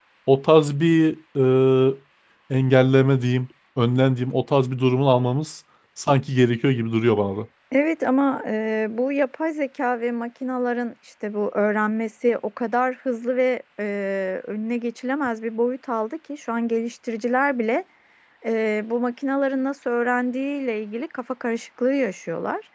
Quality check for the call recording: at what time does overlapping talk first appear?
none

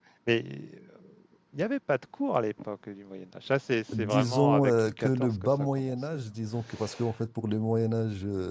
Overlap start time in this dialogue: 3.9 s

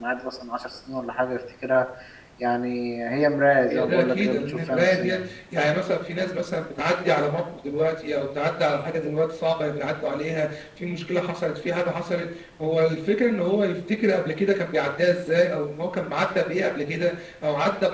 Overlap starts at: 3.7 s

